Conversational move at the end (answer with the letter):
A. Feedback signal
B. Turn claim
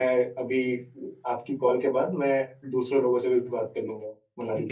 B